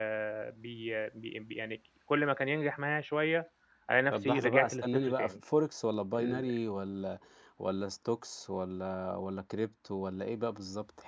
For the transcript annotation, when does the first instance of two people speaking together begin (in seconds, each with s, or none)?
4.1 s